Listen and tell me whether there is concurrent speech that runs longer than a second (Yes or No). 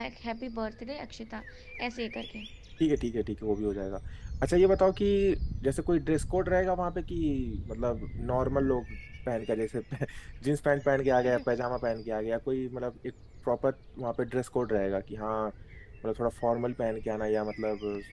No